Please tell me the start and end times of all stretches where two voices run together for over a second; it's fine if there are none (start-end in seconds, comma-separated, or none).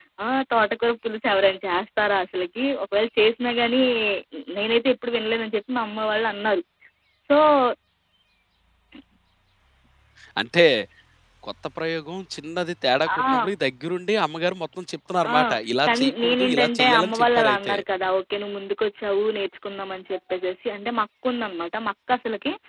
15.9-17.8